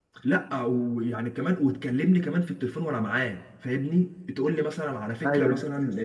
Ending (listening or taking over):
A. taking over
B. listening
B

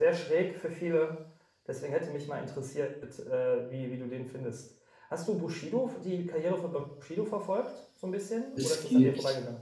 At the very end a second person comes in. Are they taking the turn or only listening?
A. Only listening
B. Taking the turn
B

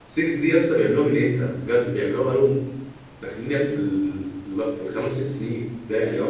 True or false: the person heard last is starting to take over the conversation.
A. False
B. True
B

